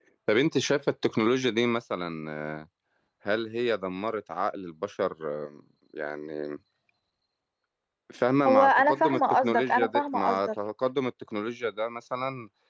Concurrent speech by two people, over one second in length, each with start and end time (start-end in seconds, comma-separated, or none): 8.5-10.5